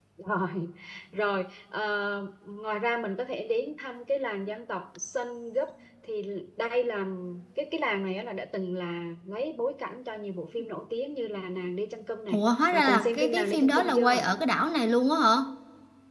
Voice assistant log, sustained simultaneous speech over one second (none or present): present